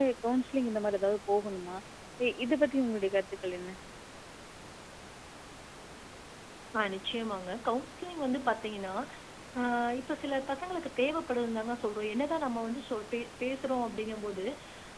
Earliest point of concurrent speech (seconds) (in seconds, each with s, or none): none